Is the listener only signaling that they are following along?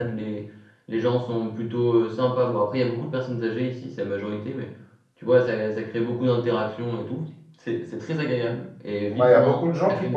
No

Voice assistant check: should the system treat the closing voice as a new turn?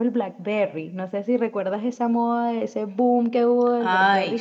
Yes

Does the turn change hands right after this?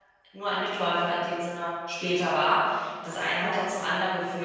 No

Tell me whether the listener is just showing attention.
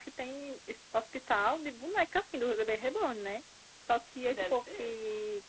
Yes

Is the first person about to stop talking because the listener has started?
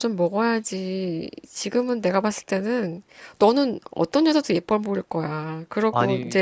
No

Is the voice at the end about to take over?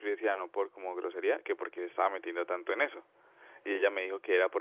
No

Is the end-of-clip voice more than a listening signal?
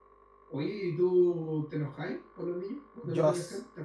Yes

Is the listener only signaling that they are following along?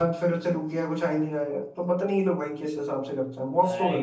No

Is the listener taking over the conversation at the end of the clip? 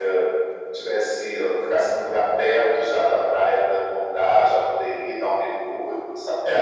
Yes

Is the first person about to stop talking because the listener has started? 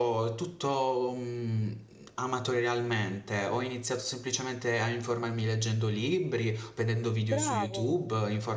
No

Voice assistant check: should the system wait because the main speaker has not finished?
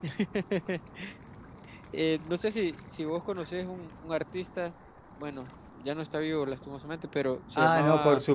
No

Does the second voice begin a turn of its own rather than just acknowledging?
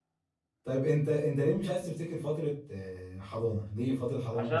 Yes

